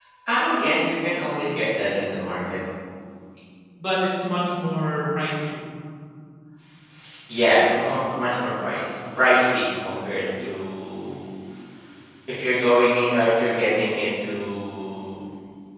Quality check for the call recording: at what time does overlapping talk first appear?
none

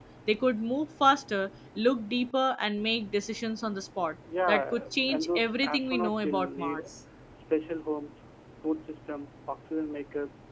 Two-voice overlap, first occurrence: 4.3 s

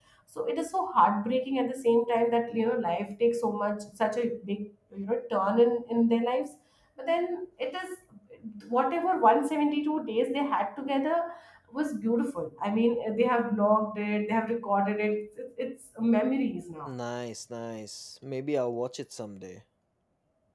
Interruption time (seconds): none

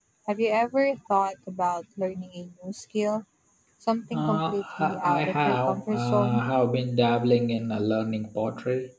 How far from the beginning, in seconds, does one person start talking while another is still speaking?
4.1 s

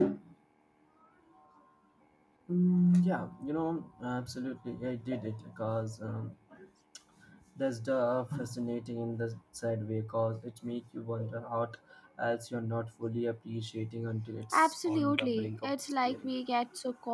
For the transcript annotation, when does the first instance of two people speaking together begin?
14.5 s

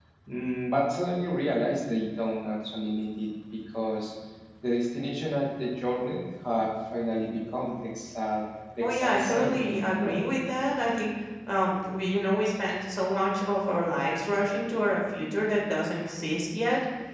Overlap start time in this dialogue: 8.8 s

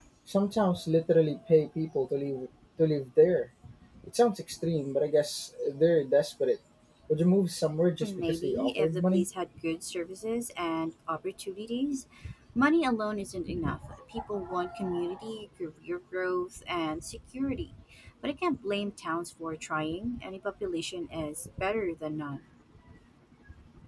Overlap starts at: 8.0 s

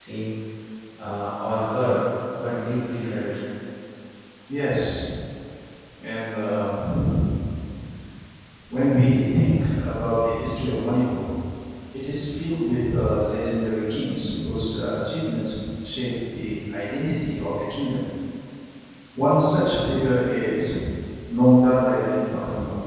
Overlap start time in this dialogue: none

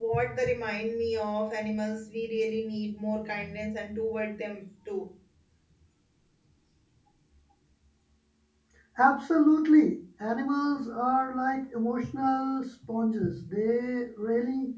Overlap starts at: none

